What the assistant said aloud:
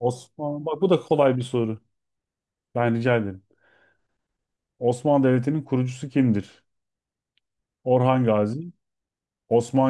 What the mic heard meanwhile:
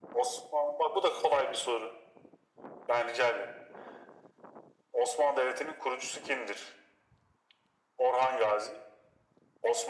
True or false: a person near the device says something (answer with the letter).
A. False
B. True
A